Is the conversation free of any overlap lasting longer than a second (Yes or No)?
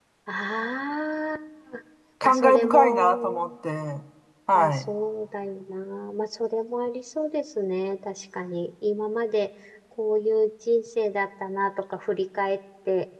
No